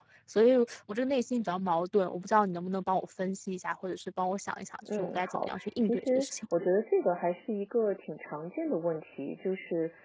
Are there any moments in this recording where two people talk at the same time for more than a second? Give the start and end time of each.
5.0-6.3

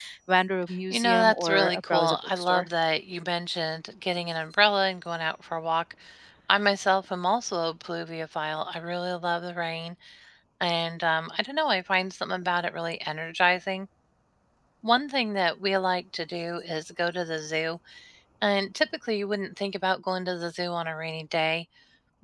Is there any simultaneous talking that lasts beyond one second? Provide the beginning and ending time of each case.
0.9-2.7

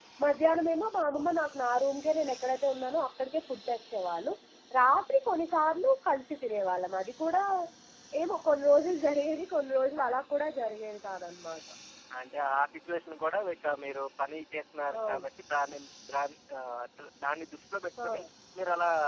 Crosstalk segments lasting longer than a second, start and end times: none

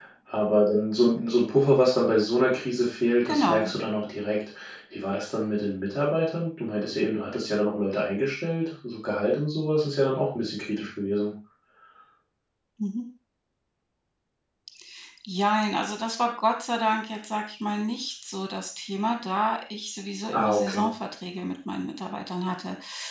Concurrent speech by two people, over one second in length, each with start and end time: none

